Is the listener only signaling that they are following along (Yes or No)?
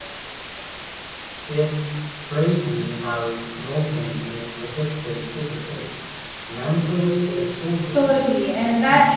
No